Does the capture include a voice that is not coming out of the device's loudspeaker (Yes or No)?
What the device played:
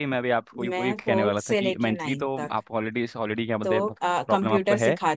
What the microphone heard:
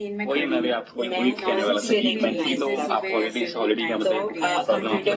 Yes